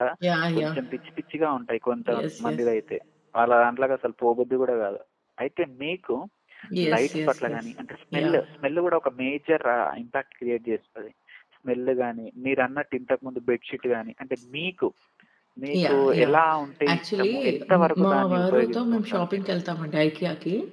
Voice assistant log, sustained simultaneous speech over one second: present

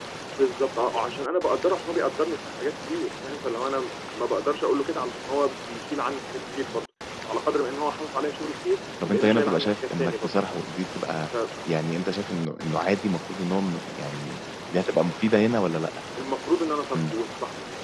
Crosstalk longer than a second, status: present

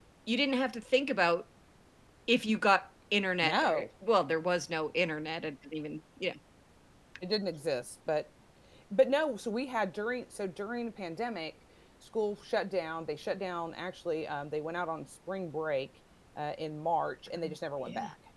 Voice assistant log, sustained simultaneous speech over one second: none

